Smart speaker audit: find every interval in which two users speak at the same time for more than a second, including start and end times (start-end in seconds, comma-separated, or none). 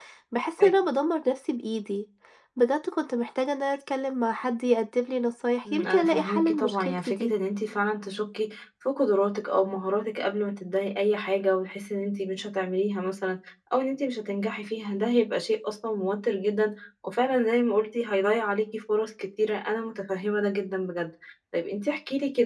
5.7-7.3